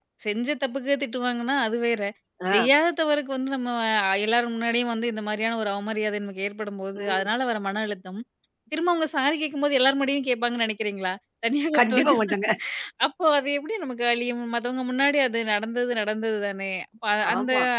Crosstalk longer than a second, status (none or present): none